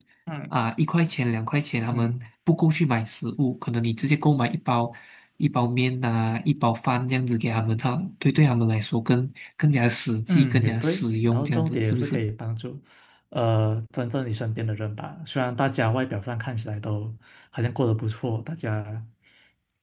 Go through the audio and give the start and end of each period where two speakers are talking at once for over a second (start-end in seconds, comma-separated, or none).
10.3-12.2